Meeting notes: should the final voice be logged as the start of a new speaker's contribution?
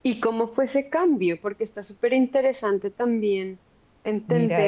Yes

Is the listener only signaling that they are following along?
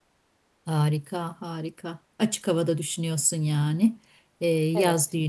Yes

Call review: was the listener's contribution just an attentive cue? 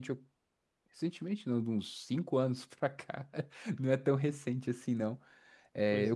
Yes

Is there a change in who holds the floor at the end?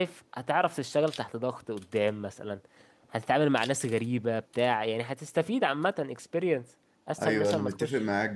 Yes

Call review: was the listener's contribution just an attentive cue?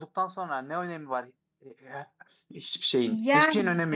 No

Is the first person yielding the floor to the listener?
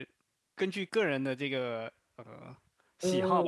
Yes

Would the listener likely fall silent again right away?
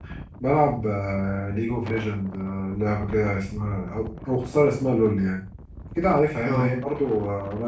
Yes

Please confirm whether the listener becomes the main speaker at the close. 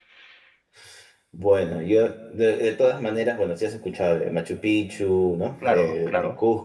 No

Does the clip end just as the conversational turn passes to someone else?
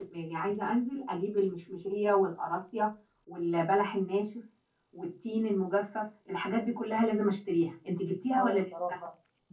Yes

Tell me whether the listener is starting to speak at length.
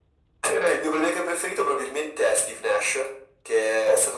No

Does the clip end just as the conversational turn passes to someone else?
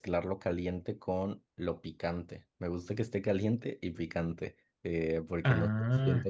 No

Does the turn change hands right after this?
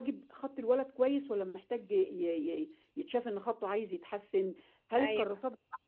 No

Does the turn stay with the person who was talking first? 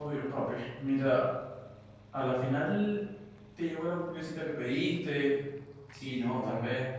No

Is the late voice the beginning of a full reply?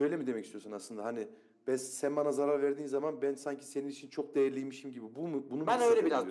Yes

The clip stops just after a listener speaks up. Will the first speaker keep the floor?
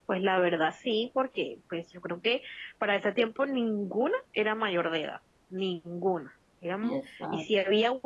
Yes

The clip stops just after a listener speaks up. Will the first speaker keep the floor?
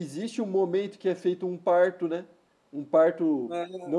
No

